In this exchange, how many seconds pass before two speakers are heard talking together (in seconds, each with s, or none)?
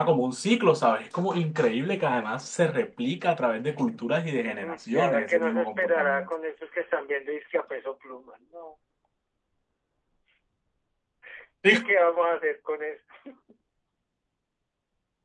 4.3 s